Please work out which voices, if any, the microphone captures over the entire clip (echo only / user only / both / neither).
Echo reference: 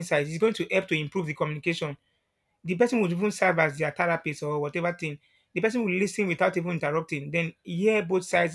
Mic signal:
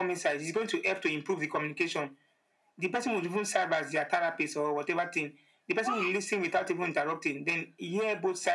both